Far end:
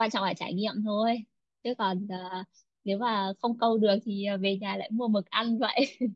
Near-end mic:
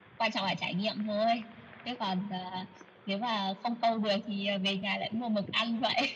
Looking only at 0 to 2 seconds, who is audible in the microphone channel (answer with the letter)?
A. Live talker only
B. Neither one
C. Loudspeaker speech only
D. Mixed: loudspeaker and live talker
C